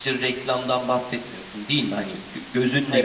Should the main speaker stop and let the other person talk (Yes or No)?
No